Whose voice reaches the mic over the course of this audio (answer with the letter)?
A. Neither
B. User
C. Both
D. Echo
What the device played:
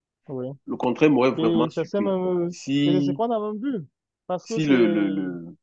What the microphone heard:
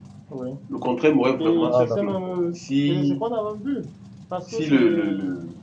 C